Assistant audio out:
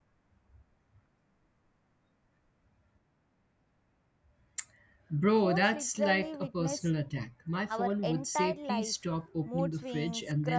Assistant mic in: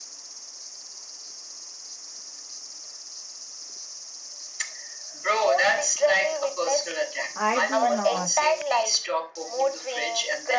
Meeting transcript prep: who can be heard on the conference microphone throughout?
both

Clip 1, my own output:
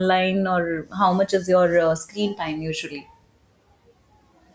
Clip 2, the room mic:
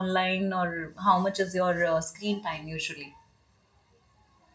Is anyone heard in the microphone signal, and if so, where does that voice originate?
echo only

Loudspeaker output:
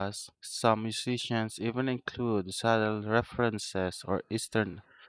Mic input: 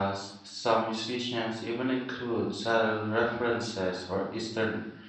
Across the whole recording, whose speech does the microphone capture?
echo only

